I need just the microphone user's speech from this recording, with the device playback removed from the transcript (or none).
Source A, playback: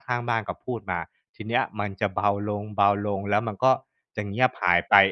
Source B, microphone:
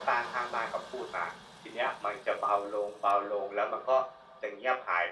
none